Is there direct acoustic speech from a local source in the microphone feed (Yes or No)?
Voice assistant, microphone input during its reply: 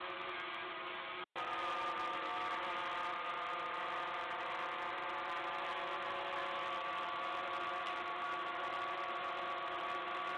No